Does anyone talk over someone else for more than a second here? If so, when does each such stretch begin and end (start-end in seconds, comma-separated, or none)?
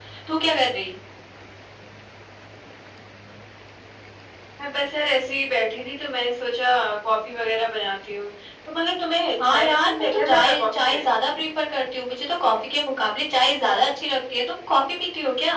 9.4-11.0